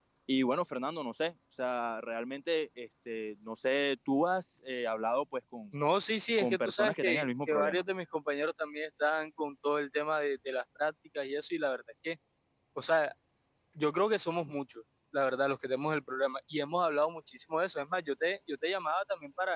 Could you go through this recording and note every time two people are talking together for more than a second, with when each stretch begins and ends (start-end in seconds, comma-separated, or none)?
6.4-7.8